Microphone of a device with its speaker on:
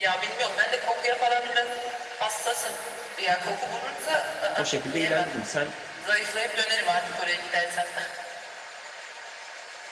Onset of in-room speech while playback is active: 4.5 s

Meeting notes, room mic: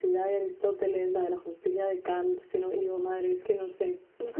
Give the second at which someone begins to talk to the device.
none

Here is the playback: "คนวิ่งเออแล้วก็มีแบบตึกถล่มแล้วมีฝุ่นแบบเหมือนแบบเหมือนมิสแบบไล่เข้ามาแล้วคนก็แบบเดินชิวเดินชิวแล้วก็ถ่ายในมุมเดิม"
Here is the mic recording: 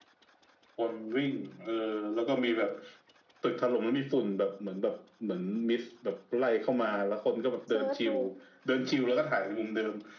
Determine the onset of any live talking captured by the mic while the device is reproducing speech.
7.7 s

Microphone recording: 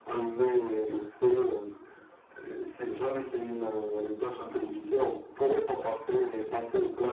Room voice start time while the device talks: none

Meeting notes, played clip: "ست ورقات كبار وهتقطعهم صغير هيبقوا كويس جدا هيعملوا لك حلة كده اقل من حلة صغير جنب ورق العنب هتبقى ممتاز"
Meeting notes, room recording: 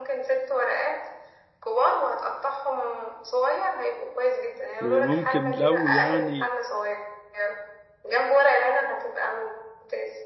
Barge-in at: 4.8 s

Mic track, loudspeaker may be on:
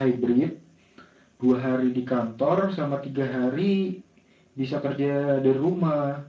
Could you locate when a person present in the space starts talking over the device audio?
none

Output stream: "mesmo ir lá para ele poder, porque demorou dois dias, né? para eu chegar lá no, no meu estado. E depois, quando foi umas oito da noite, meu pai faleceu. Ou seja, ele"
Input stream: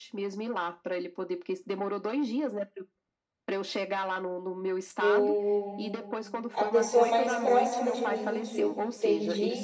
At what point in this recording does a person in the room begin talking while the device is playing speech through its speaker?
5.0 s

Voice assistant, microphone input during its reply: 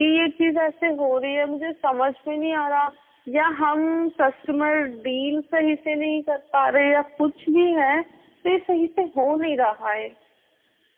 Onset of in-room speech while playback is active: none

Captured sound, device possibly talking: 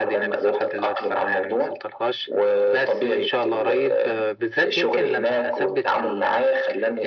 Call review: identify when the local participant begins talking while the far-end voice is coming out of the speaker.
none

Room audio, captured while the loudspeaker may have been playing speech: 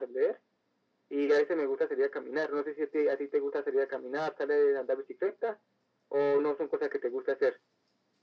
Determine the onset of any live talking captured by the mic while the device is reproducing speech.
none

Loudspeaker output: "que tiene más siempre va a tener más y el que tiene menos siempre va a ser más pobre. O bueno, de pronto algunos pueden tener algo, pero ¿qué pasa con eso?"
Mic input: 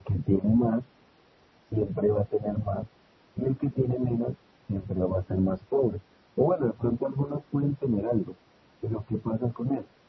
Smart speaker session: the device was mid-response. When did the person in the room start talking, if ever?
none

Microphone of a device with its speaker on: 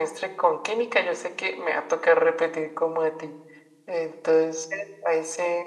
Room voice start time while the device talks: none

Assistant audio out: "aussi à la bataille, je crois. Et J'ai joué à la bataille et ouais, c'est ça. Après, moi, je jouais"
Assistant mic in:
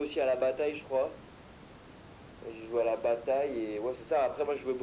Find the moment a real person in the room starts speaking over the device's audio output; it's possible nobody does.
none

